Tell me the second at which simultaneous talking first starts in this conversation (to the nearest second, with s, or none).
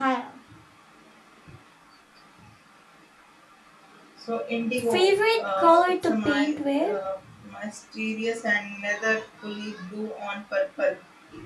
5 s